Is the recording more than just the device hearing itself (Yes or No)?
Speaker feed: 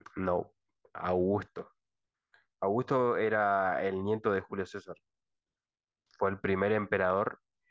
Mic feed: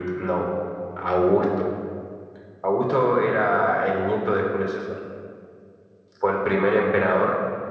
No